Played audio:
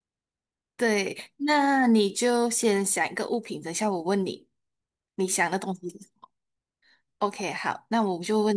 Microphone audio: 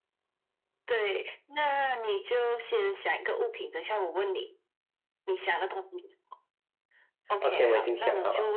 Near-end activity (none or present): present